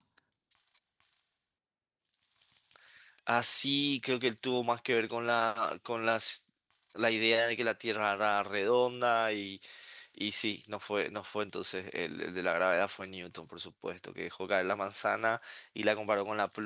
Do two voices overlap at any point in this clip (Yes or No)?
No